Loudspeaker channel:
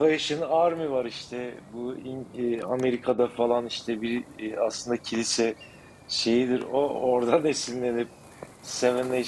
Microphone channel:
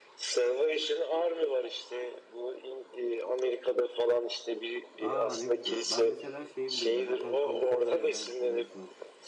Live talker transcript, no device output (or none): Aa ne güzel. Ben mesela şeyi biliyordum. Hotel California belki bilirsiniz.